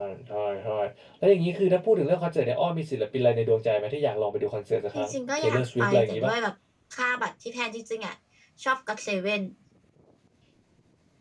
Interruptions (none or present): present